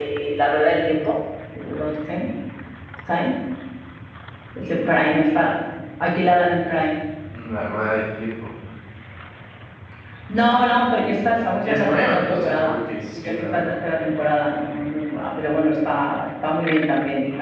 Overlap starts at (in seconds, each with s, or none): 11.2 s